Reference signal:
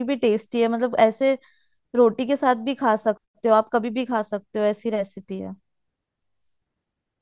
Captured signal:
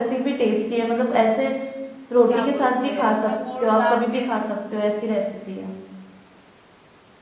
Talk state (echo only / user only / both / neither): both